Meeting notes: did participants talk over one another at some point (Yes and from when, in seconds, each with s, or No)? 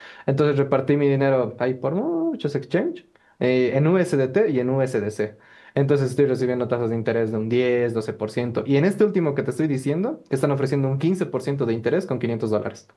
No